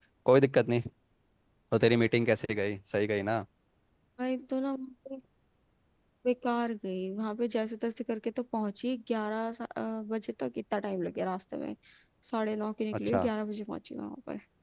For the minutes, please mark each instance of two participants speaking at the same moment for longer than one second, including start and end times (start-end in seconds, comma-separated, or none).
none